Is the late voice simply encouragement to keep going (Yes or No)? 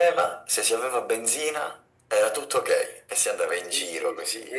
No